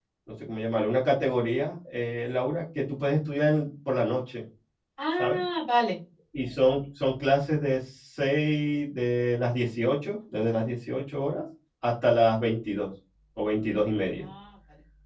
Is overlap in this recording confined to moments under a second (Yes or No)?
Yes